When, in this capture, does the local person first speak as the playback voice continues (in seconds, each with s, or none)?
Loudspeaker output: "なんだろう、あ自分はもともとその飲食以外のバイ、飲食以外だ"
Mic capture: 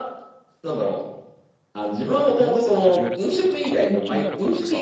2.4 s